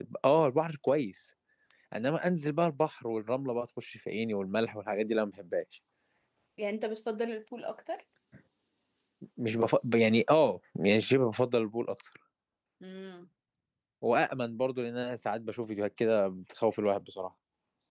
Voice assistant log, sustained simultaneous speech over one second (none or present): none